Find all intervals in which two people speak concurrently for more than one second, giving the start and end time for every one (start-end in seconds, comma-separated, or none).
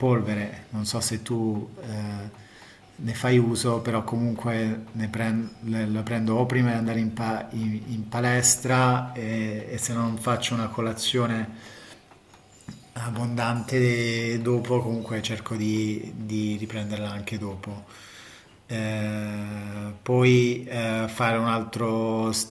none